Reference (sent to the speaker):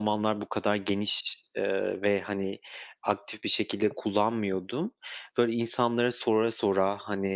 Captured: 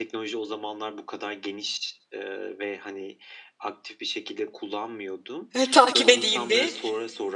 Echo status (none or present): present